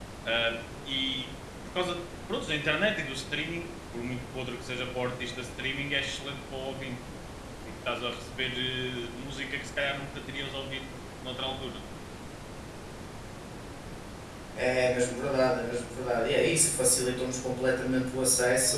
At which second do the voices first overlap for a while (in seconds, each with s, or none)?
none